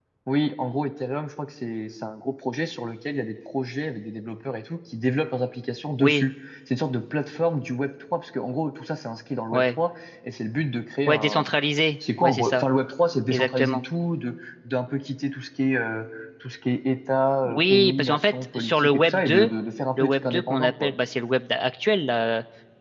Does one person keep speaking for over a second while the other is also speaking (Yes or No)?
Yes